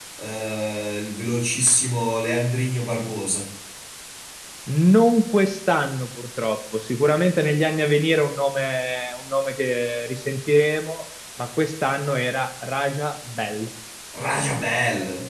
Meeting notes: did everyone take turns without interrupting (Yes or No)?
Yes